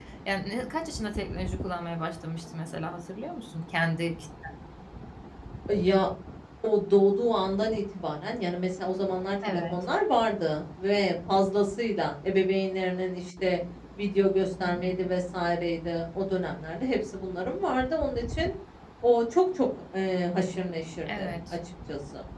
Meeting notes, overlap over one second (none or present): none